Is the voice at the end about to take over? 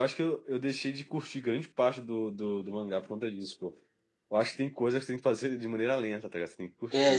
Yes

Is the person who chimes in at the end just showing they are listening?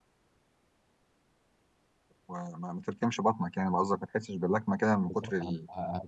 No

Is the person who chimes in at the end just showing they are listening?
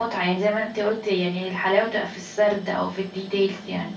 No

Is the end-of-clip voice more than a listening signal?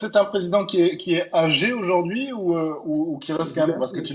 No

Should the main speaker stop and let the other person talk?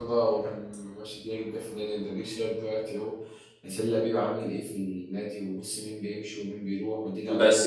Yes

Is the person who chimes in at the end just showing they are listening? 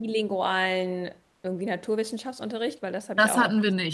No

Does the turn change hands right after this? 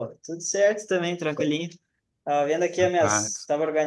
No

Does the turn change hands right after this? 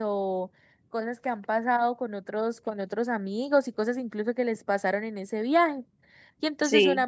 No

